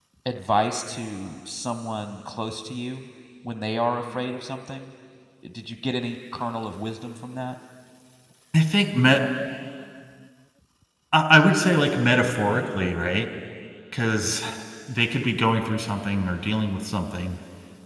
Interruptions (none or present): none